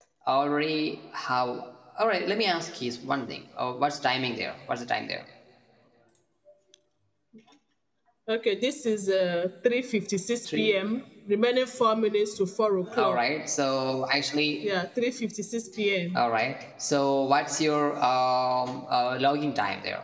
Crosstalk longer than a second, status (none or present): none